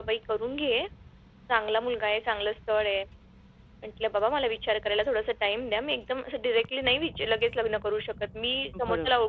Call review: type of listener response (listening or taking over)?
listening